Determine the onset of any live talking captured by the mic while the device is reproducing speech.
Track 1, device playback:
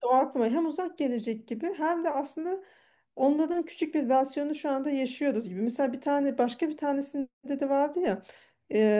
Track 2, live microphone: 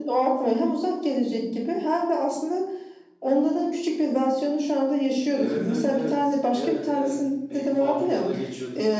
5.3 s

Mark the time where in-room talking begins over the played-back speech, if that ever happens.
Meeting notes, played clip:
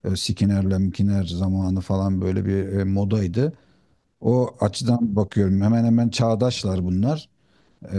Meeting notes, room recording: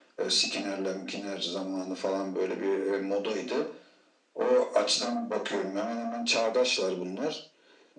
none

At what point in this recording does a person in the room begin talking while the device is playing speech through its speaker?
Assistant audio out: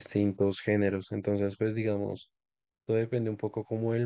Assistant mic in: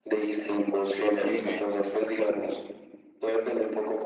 1.2 s

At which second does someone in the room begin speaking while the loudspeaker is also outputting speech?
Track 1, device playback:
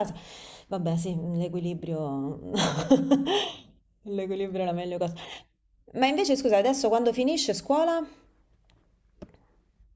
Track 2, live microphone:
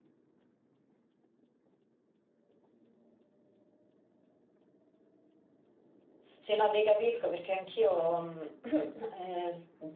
6.4 s

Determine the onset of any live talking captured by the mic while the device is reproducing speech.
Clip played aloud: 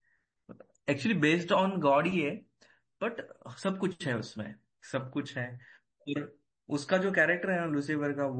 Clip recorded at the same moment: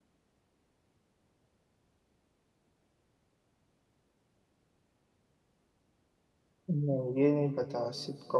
6.7 s

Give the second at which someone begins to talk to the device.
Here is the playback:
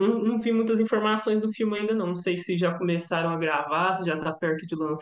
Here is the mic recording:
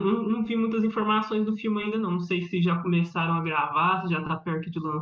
none

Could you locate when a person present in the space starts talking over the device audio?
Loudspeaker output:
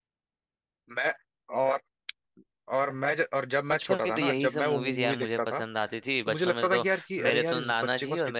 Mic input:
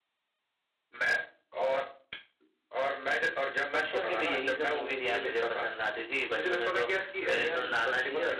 none

